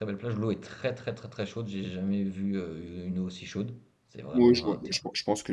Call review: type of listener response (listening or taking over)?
taking over